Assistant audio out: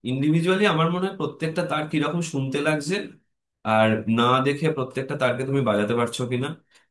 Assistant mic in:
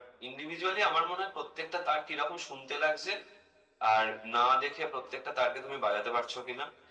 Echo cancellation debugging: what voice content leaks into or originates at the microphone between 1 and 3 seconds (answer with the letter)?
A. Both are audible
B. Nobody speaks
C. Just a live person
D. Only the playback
D